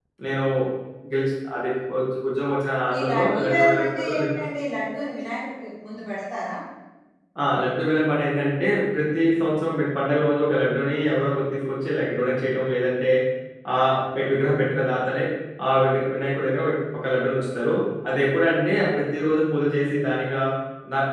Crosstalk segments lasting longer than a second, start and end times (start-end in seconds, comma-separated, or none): 2.9-4.3